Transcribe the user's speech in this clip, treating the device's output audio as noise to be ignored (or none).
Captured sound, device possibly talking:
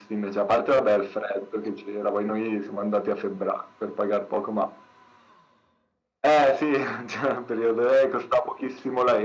none